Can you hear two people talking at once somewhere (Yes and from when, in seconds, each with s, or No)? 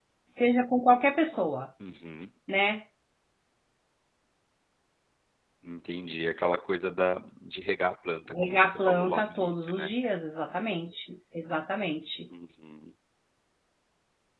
Yes, from 8.3 s